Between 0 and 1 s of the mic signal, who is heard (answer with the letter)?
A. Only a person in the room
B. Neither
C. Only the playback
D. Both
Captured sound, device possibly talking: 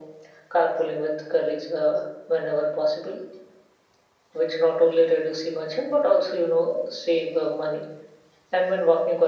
C